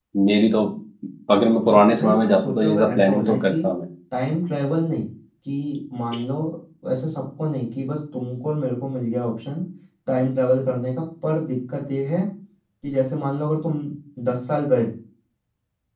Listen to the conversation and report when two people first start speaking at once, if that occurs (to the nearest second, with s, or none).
2 s